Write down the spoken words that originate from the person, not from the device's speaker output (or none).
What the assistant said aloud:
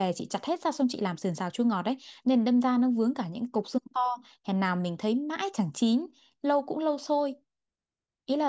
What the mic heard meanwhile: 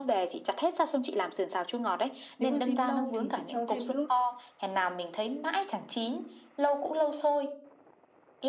nếu mà rim lâu thì chị cho thêm nước